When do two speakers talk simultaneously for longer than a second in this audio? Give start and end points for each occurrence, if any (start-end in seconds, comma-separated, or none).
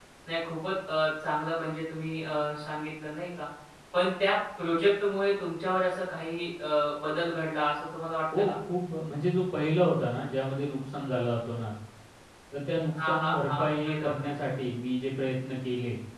13.1-14.3